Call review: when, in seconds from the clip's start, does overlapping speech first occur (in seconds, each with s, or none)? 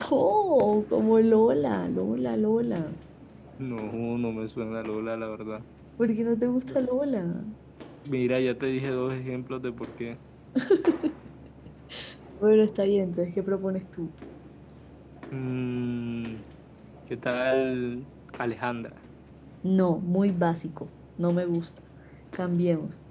none